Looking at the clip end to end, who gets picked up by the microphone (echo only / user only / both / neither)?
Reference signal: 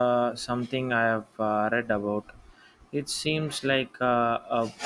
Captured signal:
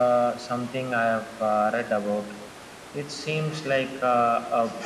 echo only